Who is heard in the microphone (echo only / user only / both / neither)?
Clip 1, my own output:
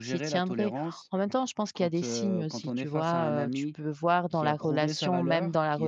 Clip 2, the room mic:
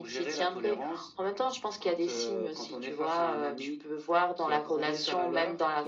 echo only